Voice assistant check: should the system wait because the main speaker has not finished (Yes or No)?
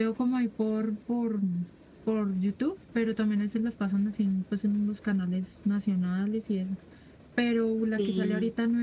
Yes